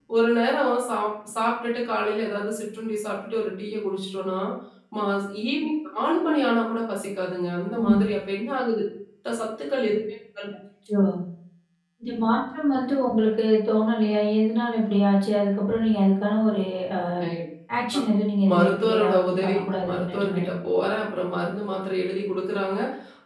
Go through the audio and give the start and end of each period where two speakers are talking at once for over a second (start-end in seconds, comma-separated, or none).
18.5-20.4